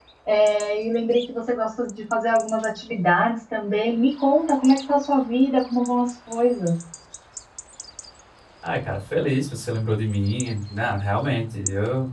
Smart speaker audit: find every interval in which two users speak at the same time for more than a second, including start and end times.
none

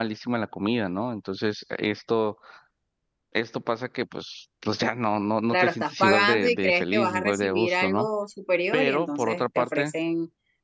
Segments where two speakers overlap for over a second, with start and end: 5.5-8.1, 8.7-9.9

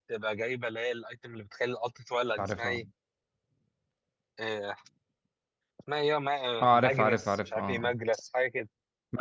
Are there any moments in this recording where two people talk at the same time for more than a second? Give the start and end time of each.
6.6-7.9

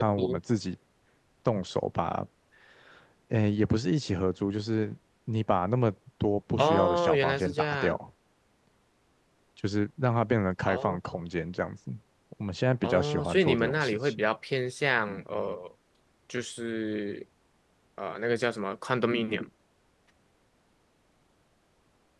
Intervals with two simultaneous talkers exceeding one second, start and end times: 6.6-8.0, 12.8-14.2

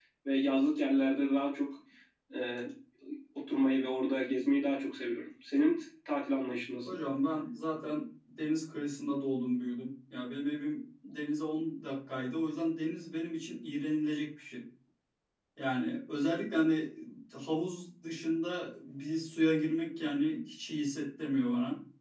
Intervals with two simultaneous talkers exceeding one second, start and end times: none

